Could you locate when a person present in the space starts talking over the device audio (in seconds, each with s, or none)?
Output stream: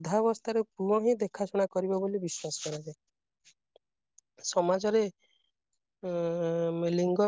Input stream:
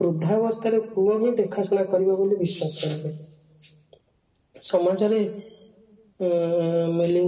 none